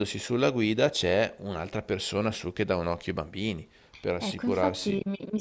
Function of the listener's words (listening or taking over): taking over